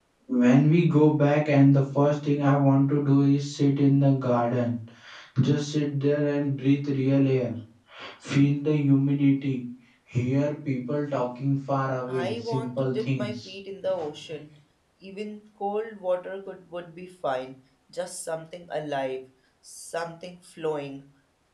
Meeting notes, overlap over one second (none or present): present